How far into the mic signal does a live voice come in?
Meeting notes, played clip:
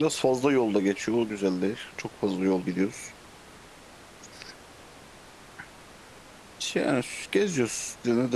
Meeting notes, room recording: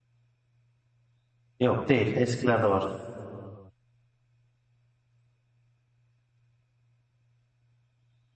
1.6 s

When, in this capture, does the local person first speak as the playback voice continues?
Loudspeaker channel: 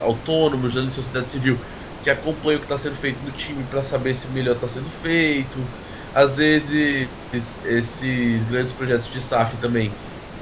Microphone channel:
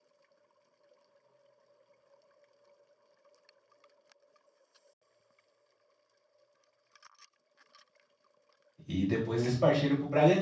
8.9 s

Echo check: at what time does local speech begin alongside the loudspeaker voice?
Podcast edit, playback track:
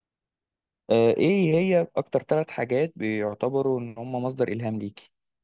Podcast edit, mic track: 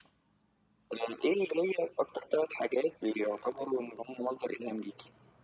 none

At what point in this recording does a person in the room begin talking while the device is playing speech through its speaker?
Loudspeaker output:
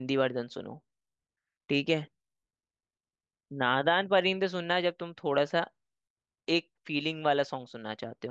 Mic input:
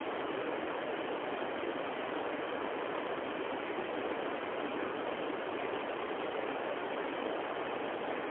none

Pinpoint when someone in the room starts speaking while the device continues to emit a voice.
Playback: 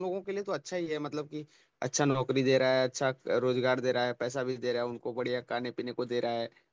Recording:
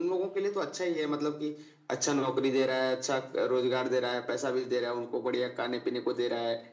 none

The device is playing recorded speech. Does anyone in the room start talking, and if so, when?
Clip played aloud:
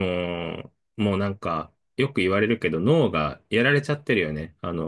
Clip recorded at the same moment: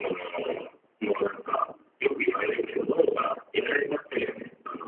none

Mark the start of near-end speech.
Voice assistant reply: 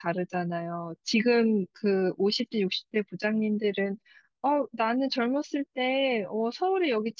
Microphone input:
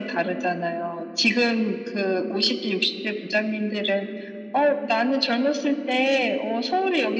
none

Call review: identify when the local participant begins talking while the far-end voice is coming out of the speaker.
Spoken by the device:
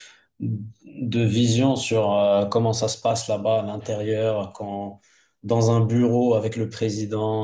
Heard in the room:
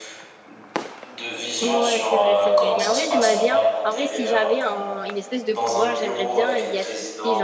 1.6 s

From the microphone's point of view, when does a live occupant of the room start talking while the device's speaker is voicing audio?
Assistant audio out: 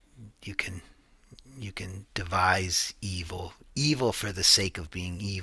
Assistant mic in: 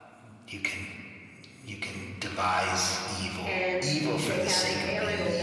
3.4 s

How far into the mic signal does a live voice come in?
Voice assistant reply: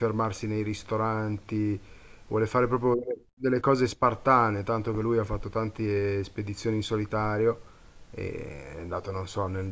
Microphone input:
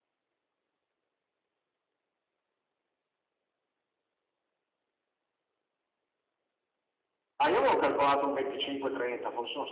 7.4 s

